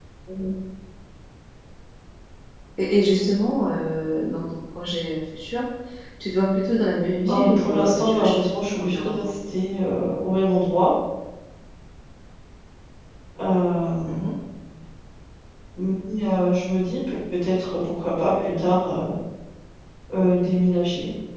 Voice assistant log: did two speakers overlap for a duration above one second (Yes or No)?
Yes